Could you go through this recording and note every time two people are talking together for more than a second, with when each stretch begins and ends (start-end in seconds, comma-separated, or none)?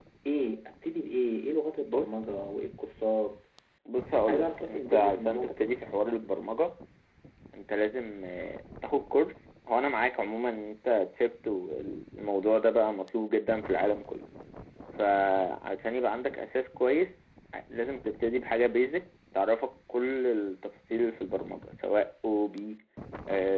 4.3-5.7